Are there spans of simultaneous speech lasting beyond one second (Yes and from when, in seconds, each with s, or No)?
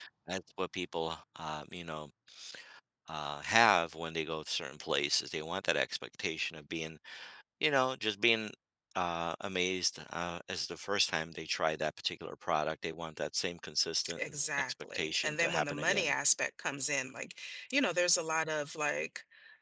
Yes, from 14.0 s